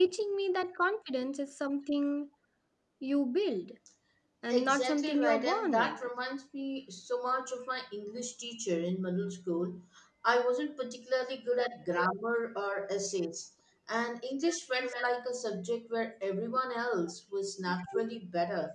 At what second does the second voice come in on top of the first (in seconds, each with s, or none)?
4.5 s